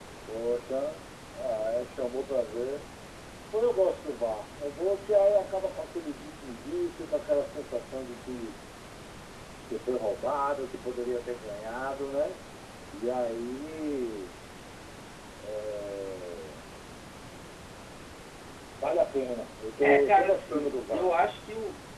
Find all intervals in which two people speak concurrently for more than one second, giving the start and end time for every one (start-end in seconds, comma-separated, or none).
19.8-21.1